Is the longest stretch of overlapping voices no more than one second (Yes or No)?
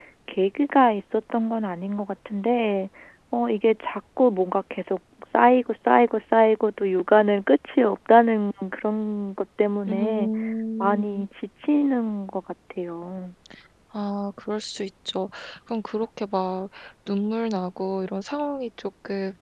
Yes